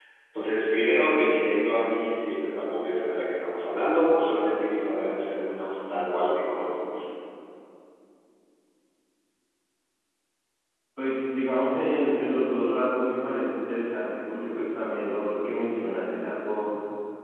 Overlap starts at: none

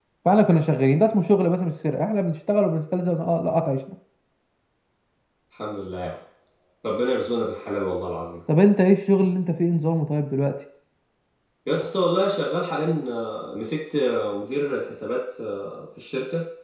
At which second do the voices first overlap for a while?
none

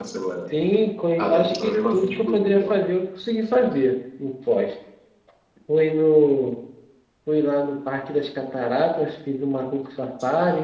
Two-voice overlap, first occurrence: 1 s

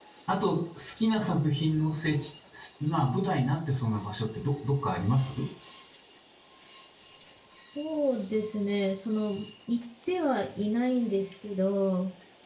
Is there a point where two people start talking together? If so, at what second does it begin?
none

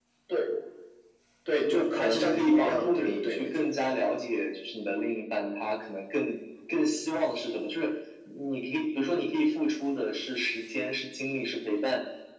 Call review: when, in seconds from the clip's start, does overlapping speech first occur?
2 s

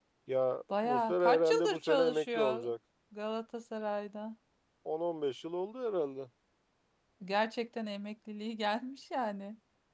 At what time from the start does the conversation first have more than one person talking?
1 s

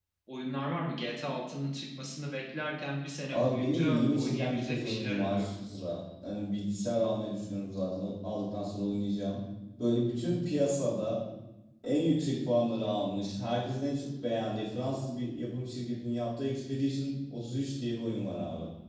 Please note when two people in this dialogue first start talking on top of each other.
3 s

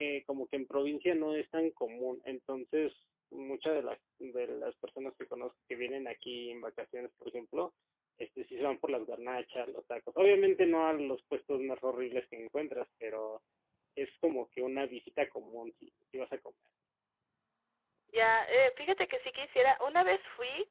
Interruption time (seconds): none

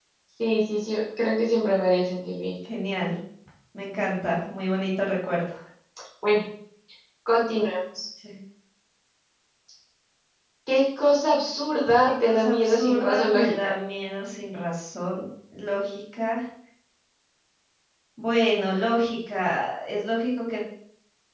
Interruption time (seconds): 12 s

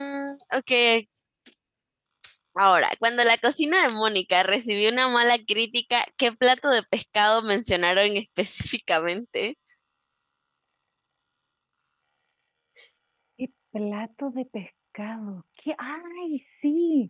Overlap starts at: none

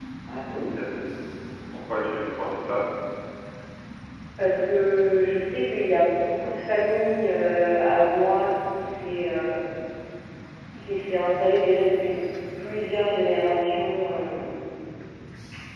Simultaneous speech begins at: none

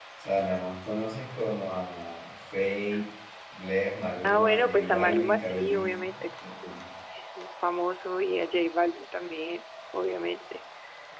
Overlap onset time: 4 s

